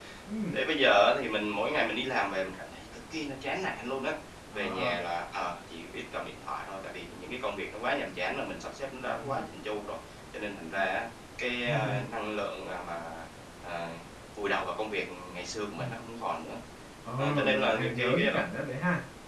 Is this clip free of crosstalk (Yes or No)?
No